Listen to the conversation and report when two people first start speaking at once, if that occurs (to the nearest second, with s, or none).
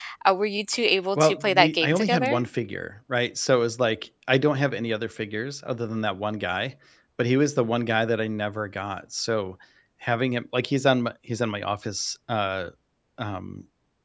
1 s